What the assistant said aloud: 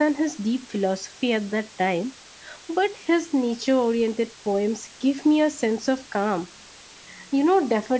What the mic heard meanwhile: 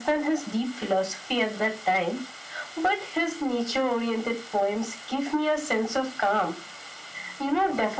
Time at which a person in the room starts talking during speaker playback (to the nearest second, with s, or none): none